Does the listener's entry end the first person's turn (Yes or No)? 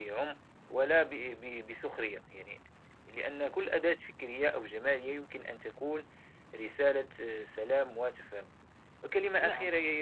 No